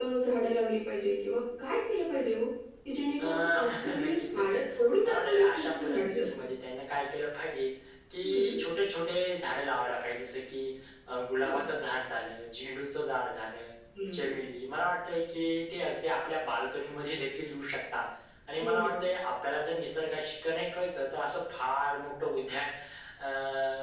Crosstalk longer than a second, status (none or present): present